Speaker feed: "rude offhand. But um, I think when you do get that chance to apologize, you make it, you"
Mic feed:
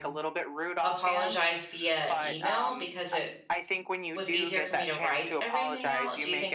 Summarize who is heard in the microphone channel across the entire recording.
both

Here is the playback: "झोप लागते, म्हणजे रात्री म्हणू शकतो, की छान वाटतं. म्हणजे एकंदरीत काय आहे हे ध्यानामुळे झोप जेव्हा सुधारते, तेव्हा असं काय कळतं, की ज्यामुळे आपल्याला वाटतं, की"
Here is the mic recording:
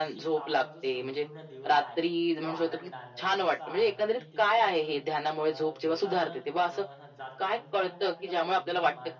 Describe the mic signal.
both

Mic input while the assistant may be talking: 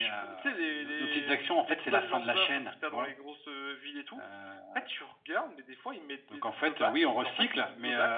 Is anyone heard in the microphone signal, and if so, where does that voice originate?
echo only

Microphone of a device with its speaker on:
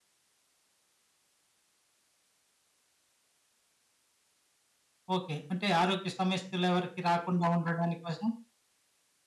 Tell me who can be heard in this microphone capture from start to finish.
user only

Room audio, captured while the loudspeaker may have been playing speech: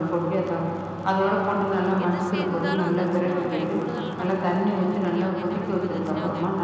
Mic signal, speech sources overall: both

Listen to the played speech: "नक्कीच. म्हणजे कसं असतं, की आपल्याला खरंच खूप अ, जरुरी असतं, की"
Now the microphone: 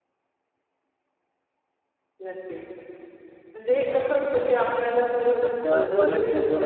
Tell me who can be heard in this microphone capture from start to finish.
both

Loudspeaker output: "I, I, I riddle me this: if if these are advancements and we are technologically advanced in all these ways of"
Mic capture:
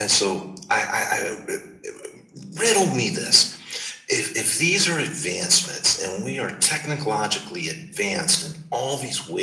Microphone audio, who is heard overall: echo only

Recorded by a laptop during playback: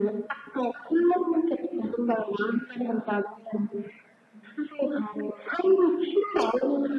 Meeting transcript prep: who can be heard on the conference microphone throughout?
echo only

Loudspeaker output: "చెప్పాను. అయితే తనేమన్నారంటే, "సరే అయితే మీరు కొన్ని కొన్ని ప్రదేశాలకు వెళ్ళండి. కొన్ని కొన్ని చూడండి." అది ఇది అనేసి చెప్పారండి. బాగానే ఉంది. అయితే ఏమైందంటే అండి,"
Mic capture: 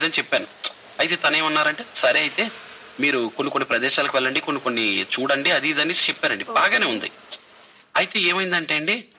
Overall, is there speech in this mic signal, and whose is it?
both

